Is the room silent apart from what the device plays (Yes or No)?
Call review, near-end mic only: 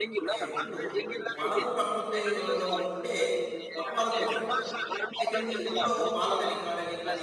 No